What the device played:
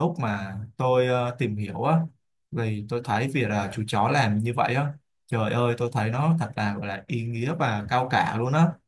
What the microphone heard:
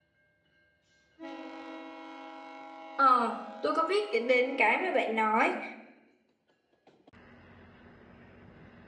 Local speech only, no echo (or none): ờ tôi có biết đến đến cái mà bạn nói